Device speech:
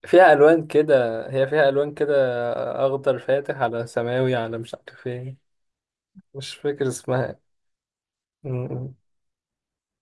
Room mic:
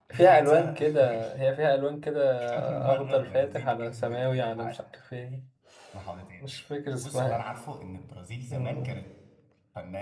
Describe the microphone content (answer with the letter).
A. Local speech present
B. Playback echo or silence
A